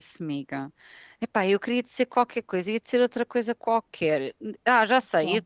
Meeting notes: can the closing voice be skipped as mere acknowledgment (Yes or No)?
Yes